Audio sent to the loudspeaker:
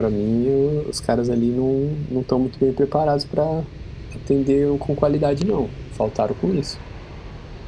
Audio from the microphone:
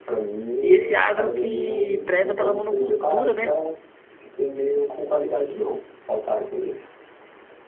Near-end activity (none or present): present